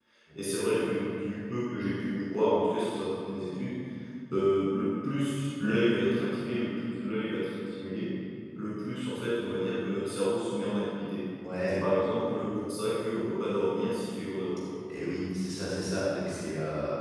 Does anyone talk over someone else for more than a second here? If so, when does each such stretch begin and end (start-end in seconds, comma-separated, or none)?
none